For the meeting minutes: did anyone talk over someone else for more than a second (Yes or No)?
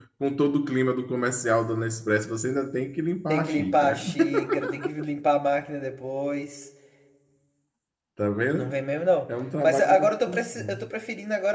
Yes